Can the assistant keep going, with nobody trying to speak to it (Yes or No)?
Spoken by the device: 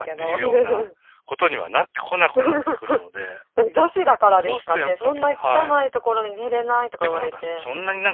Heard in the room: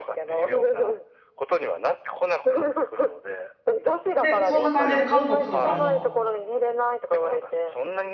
No